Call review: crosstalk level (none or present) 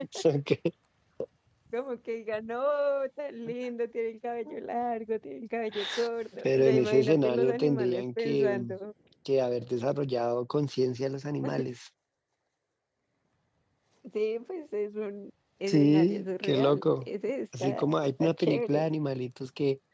present